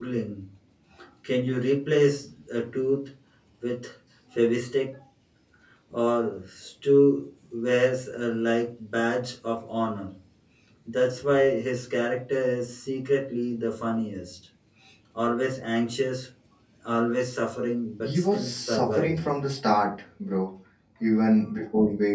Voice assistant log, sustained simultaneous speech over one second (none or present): present